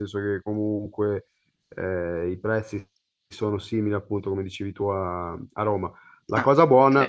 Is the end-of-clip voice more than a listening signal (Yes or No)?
No